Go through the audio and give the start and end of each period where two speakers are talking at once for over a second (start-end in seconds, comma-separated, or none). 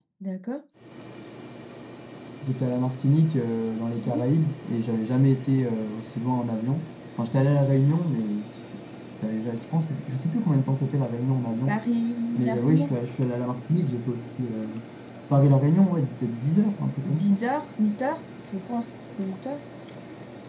none